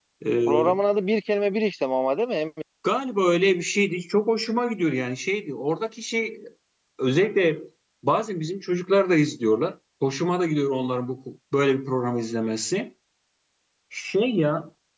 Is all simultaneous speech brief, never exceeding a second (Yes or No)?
Yes